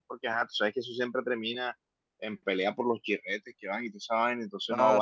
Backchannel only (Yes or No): No